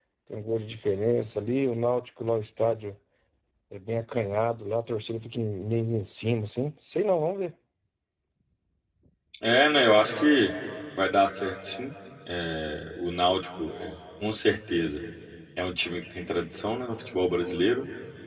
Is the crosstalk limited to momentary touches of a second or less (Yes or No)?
Yes